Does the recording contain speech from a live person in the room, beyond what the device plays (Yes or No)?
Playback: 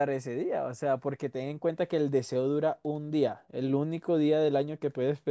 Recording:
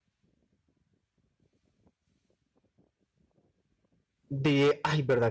Yes